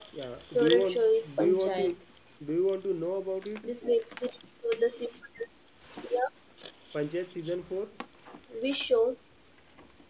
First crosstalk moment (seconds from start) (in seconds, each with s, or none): 0.5 s